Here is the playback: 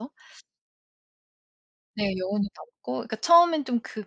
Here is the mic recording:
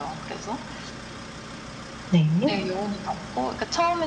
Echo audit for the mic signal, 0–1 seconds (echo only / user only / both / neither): echo only